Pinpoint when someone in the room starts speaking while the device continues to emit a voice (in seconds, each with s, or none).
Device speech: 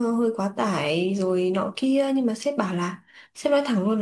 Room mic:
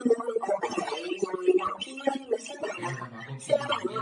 2.8 s